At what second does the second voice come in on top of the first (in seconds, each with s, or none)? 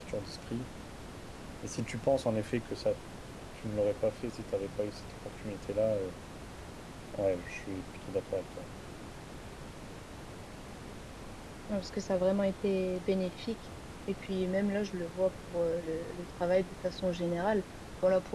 none